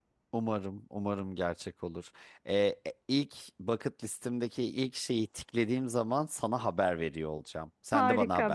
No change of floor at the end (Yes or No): No